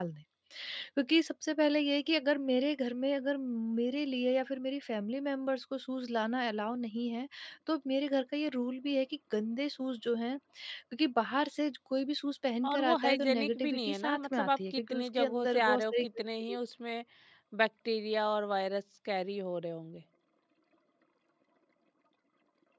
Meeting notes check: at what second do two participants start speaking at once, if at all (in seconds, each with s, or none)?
12.6 s